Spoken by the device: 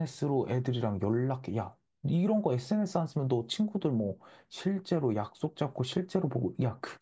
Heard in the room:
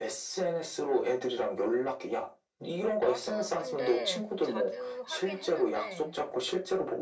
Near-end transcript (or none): 나도 근데 자주 하긴 했는데